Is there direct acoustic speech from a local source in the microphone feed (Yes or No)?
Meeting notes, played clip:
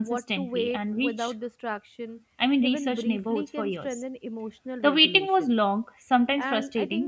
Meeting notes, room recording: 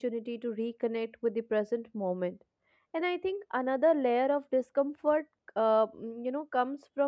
Yes